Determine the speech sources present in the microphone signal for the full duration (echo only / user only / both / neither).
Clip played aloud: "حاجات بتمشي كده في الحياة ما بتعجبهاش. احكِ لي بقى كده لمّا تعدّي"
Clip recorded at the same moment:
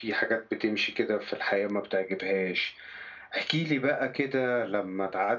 echo only